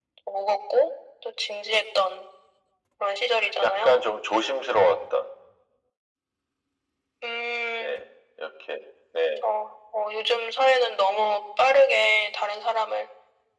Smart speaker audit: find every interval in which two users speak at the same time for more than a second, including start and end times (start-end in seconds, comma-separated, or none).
none